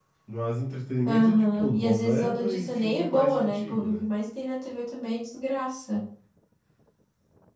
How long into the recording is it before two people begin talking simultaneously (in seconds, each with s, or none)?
1.0 s